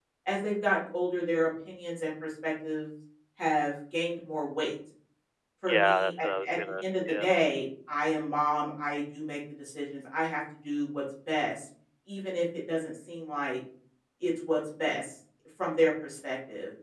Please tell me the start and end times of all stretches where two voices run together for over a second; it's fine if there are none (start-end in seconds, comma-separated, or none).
5.7-7.2